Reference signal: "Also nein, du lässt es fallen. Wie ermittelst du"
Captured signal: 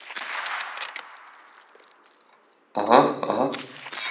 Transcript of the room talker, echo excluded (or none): Aha, aha.